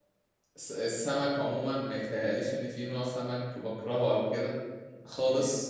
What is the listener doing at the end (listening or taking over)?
listening